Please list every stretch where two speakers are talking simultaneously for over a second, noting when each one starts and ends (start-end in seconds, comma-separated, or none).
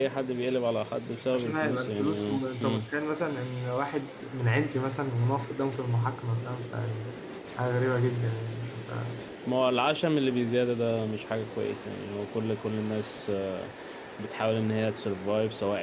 1.3-2.9